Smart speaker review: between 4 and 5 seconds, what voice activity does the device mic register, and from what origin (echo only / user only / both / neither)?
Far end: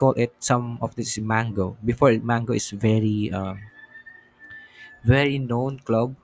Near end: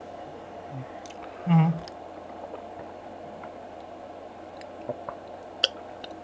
neither